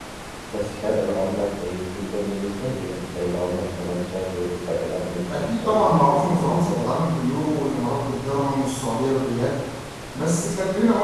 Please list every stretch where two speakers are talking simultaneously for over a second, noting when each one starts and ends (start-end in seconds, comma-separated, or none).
5.3-6.9